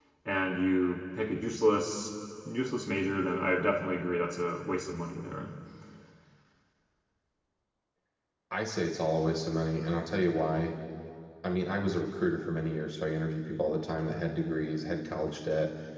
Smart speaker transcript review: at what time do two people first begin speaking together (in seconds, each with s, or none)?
none